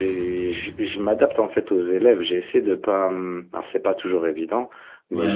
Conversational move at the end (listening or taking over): listening